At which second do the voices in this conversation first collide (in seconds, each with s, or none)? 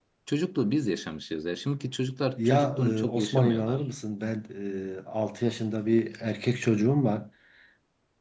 2.4 s